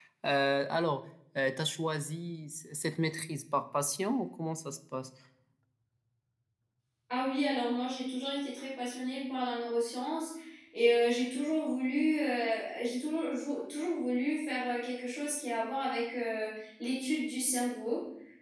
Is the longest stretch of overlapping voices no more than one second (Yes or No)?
Yes